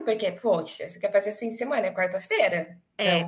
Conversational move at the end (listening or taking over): taking over